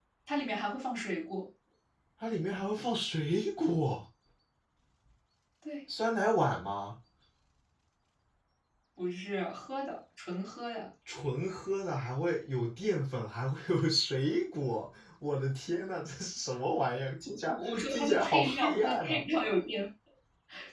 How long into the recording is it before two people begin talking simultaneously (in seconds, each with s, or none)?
17.4 s